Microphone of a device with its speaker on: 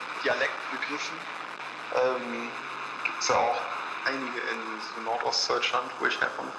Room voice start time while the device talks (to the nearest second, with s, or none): none